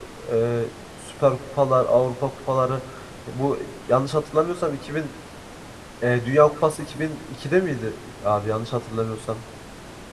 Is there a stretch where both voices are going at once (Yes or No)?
No